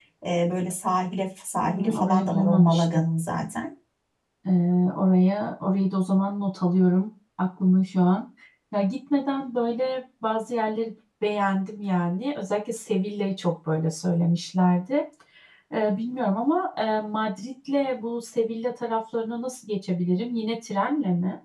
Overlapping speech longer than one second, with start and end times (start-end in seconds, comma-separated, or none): 1.6-3.0